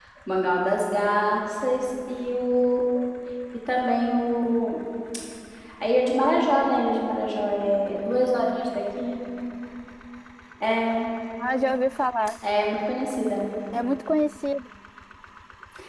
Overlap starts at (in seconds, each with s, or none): none